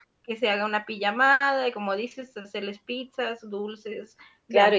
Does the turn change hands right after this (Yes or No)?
Yes